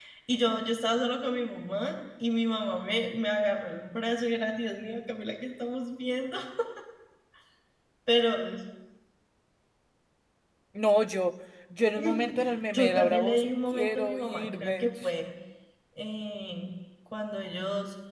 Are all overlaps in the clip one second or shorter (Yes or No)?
No